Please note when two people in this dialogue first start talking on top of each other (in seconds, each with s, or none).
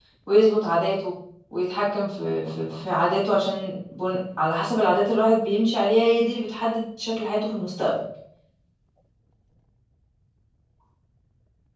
none